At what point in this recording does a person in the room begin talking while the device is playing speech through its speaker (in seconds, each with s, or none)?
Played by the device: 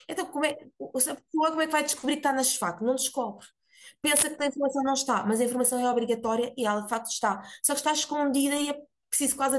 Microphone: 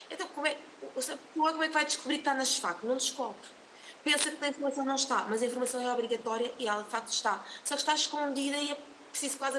none